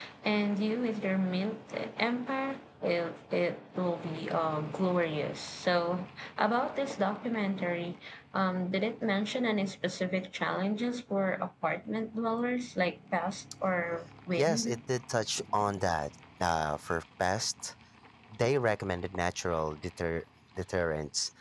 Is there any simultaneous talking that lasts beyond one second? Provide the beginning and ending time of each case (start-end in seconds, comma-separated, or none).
none